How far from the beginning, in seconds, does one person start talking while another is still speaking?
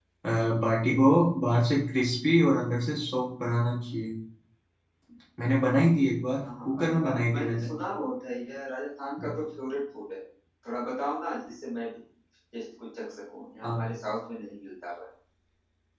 6.4 s

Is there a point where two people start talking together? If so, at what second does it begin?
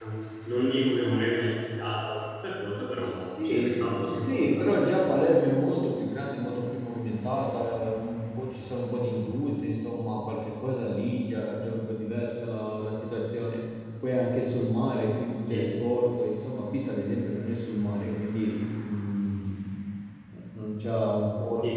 3.2 s

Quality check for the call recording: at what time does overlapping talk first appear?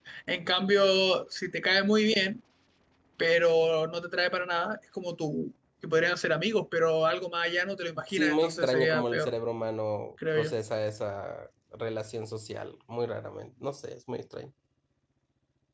8.1 s

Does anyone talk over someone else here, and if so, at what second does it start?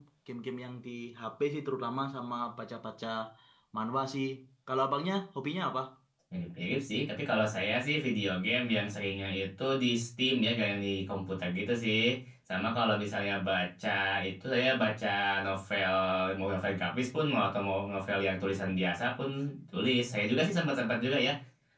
none

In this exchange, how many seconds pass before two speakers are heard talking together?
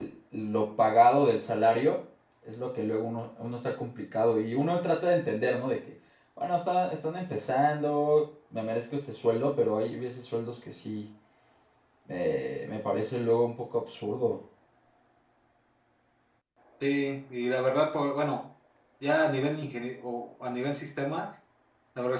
none

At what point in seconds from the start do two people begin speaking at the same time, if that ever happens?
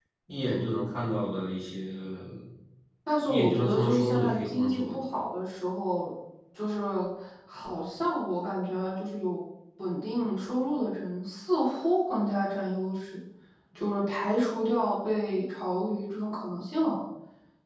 3.2 s

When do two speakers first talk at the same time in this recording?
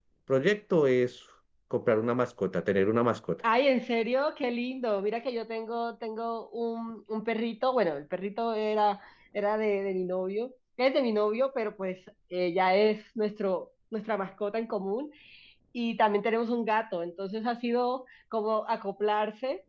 none

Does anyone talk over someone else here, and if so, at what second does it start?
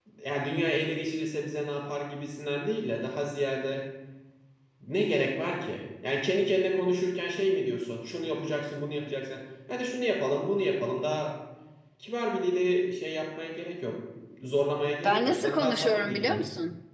15.0 s

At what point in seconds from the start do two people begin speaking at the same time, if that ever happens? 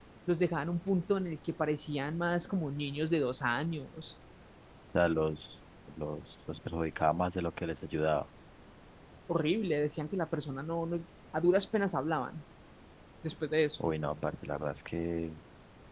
none

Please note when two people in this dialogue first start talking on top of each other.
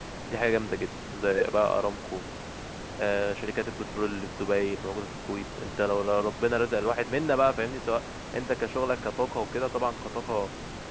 none

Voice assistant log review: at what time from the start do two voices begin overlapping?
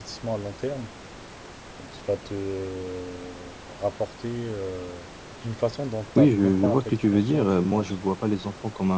6.2 s

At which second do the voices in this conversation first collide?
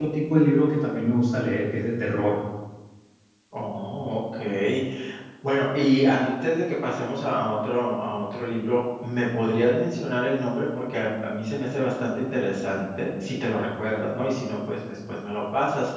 none

